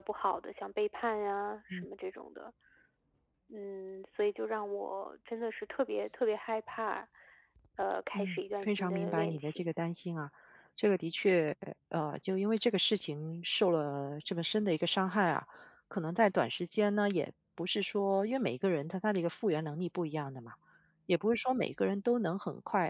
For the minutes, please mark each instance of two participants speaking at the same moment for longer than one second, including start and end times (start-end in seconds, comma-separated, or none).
8.1-9.7